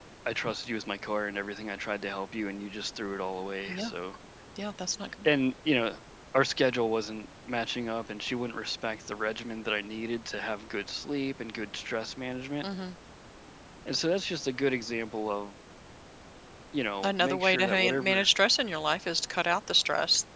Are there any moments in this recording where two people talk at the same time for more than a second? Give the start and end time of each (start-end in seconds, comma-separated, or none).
17.0-18.3